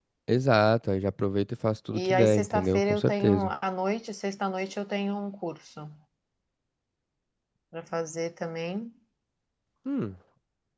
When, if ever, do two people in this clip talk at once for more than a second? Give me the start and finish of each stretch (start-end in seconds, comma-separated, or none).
1.9-3.5